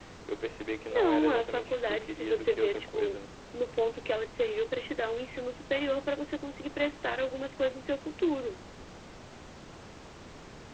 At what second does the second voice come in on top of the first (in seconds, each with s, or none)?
0.9 s